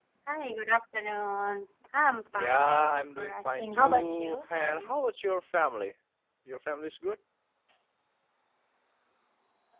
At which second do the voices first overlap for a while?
2.3 s

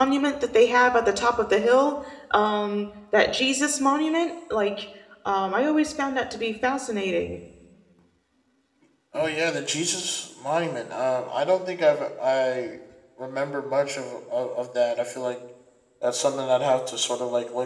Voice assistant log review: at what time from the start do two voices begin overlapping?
none

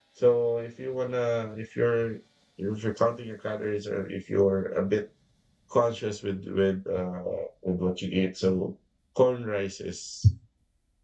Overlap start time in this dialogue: none

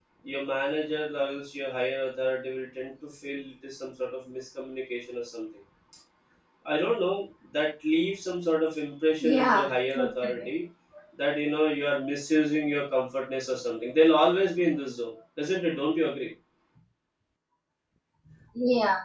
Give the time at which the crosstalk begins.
9.2 s

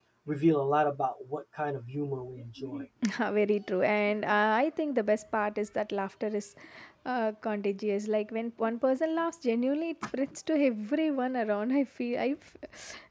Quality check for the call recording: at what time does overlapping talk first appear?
none

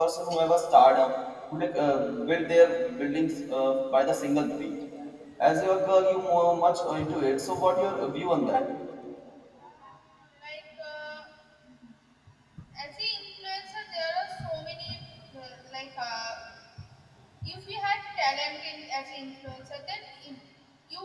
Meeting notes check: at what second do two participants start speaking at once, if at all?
none

